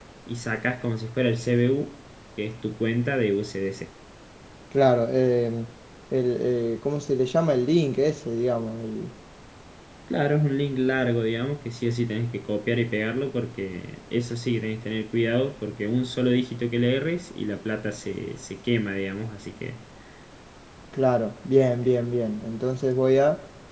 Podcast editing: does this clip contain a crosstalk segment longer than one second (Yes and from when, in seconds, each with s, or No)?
No